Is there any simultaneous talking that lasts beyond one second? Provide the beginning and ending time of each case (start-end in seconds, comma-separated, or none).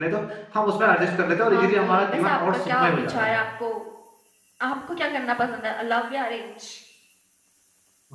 1.5-3.3